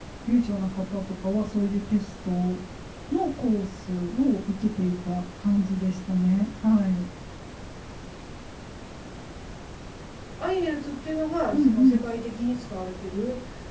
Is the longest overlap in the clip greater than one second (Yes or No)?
No